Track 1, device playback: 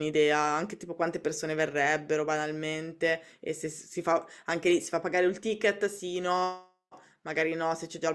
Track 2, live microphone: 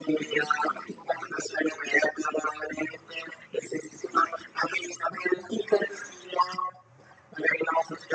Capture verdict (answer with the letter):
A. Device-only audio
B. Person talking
A